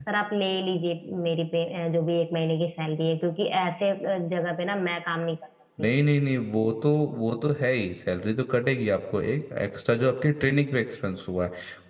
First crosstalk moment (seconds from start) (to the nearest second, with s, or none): none